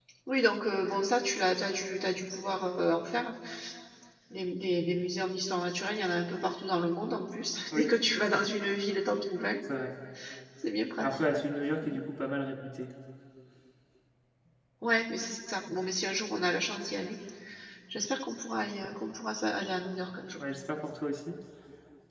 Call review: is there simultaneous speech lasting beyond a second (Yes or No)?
No